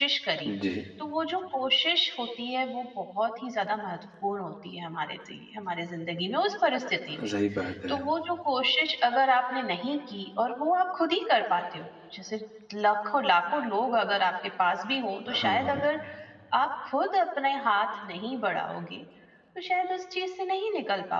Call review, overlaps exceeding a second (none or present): none